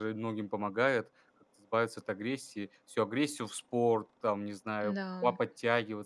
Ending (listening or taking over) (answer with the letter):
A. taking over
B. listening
B